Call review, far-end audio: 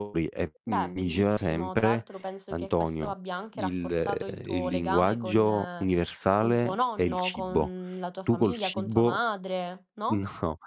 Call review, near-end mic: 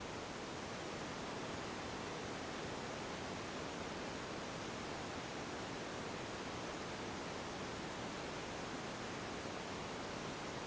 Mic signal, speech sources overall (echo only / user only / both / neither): neither